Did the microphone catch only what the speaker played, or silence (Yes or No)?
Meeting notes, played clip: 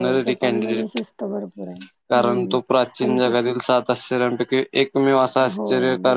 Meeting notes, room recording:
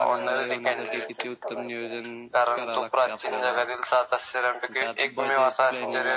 No